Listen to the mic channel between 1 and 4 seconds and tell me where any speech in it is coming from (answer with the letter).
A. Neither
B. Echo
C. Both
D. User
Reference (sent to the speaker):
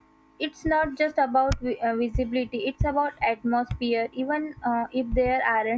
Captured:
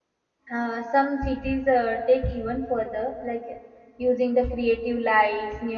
D